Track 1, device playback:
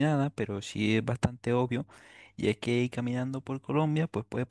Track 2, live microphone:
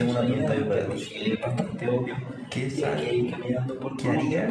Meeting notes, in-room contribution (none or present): present